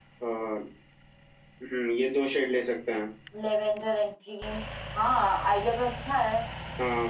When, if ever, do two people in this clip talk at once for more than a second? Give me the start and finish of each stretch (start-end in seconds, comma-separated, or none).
none